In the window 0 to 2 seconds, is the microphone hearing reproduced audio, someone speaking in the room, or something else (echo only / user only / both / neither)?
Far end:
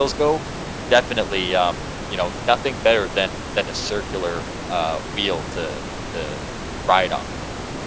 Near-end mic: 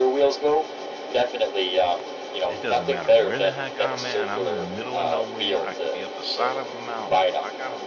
echo only